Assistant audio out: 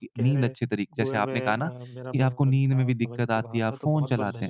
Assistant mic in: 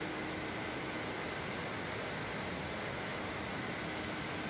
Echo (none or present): none